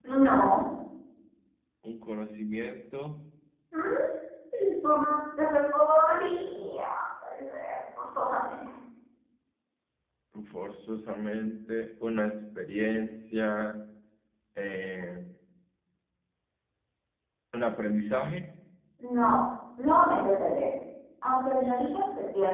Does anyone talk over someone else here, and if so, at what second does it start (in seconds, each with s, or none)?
none